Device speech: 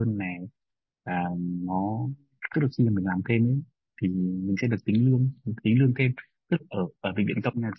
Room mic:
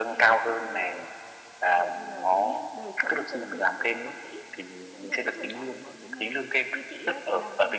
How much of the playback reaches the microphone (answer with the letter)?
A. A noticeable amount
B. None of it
A